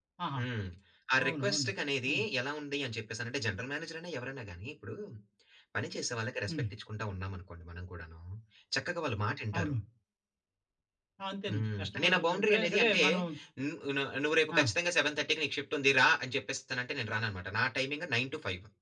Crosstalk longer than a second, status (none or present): present